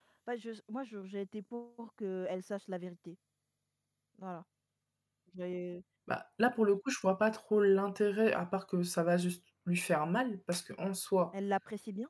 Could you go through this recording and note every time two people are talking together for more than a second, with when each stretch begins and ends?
none

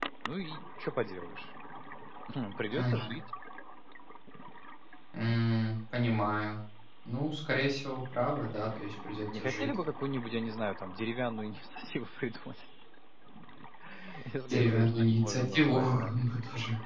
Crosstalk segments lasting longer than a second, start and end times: 14.5-16.1

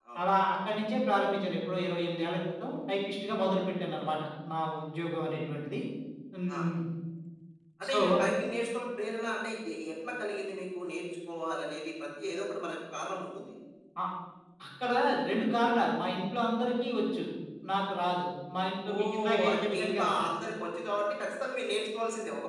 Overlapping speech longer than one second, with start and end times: 18.9-20.1

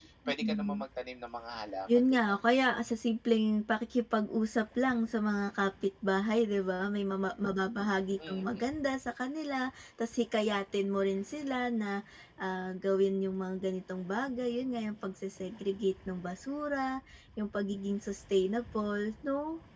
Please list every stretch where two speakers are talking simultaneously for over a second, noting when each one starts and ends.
none

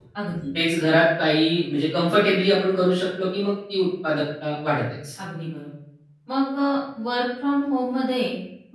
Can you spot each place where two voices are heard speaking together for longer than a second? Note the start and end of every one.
none

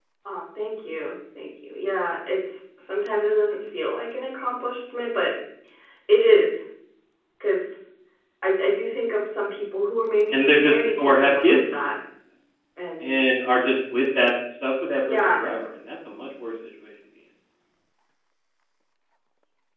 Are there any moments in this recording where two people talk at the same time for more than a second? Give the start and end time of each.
10.3-11.9

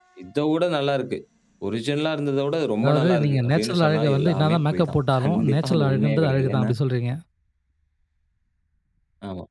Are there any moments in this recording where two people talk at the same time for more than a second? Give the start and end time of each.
2.8-6.7

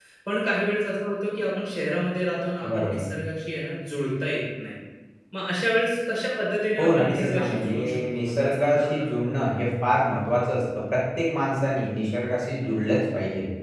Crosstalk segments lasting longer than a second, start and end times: 6.8-9.1

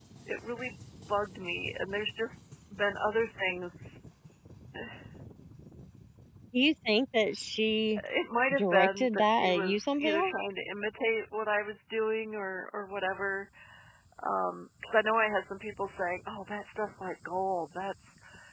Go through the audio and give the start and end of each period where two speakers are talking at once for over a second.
8.5-10.3

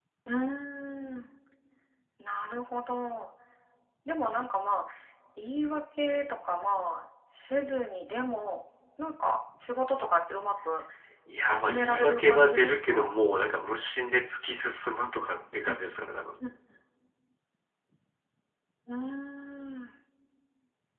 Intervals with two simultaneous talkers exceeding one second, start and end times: 11.4-13.1

